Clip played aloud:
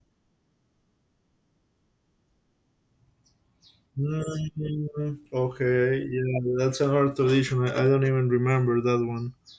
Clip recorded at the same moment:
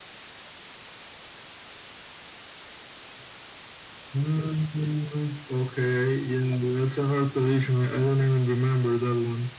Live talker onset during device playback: none

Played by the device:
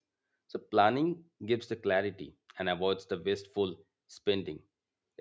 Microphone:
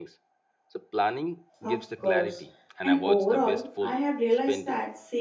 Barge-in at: 2 s

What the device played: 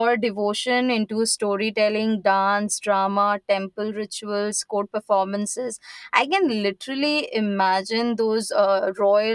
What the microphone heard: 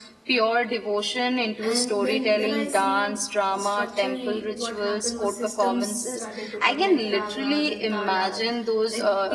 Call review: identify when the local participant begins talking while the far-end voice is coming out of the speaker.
2 s

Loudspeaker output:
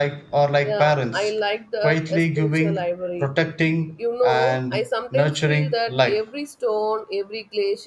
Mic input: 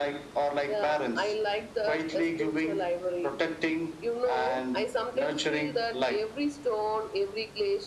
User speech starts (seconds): none

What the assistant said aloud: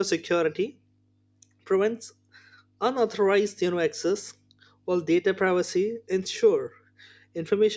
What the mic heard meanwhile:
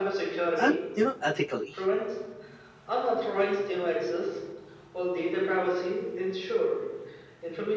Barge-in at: 1 s

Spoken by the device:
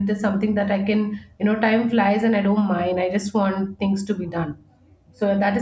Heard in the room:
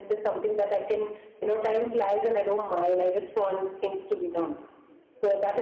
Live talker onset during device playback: none

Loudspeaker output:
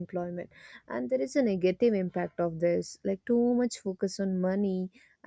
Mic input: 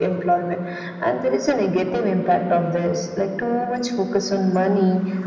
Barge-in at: none

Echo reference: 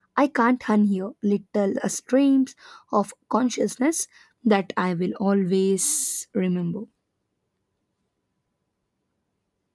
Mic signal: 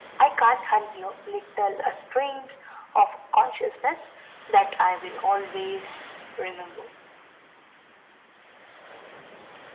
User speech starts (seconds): none

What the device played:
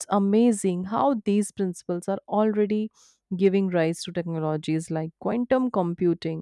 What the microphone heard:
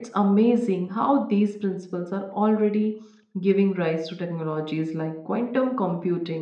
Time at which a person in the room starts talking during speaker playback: none

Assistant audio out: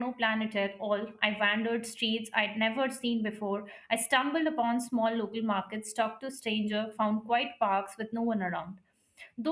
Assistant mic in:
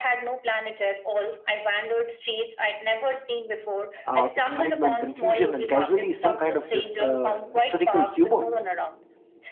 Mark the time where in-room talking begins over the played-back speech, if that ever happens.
4 s

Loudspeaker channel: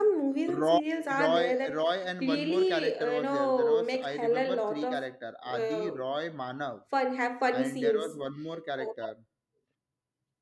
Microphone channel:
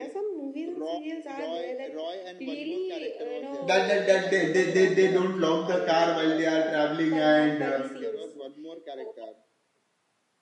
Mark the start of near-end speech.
4 s

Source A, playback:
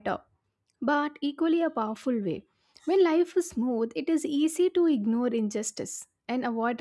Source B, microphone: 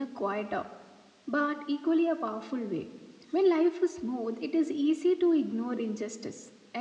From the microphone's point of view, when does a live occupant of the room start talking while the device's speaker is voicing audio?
none

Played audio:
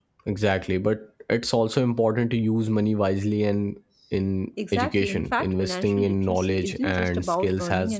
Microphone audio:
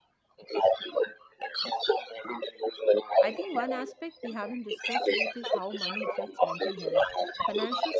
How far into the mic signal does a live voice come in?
3 s

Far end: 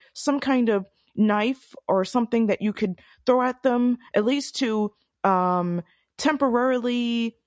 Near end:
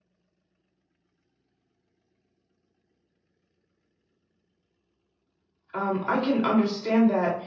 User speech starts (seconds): 6 s

